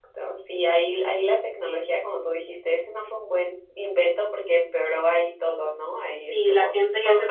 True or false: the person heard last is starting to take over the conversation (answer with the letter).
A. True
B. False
A